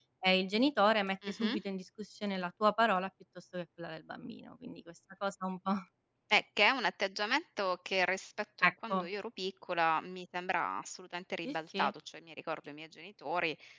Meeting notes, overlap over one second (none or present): none